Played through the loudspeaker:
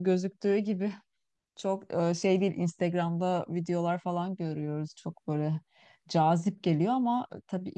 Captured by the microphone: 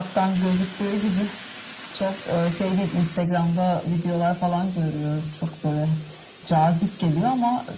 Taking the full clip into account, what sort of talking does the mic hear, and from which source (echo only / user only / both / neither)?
echo only